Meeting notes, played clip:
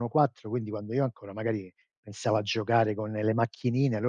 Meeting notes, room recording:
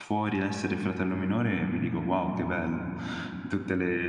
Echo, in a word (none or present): none